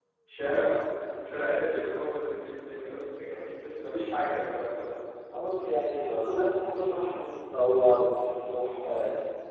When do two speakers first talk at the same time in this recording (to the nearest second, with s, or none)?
none